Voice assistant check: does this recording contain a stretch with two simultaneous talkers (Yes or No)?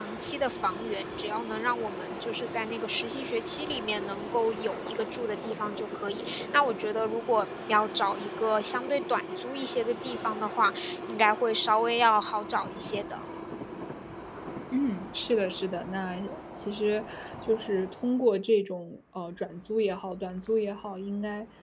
No